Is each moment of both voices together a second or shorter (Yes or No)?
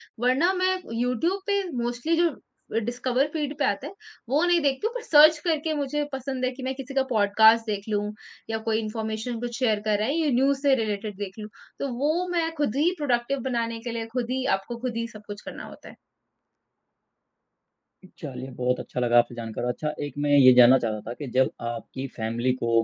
Yes